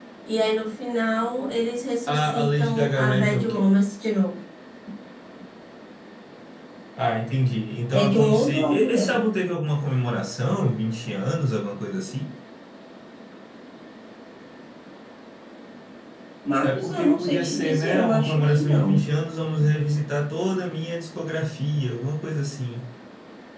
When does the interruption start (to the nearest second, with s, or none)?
2 s